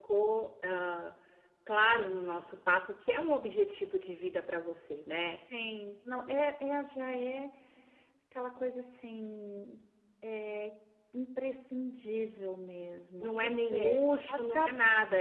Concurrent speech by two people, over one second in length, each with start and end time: 13.2-14.7

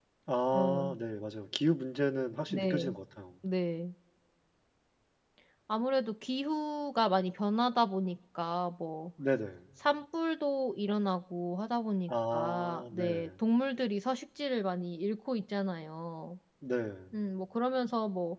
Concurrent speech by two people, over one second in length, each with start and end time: 12.1-13.3

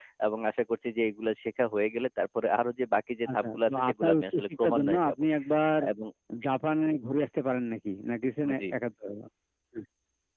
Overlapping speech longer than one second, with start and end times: 3.3-5.2

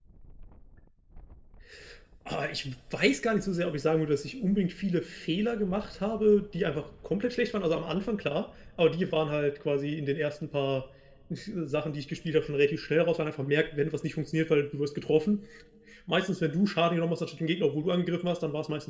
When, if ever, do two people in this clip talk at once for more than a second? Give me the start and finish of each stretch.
none

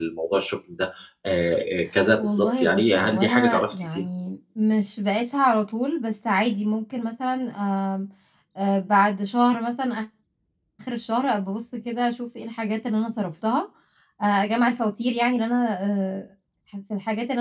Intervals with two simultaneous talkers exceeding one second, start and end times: 2.2-4.0

